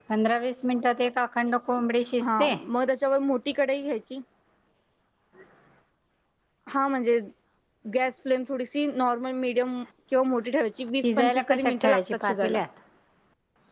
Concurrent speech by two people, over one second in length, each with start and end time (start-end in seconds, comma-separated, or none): 11.0-12.6